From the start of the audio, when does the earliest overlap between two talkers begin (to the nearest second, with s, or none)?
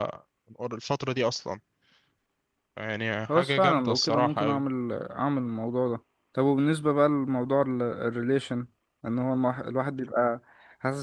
3 s